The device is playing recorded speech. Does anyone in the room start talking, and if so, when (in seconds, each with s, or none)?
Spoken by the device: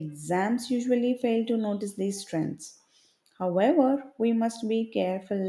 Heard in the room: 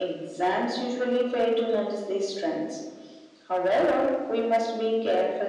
none